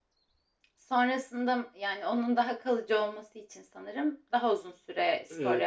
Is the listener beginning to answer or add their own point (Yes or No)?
Yes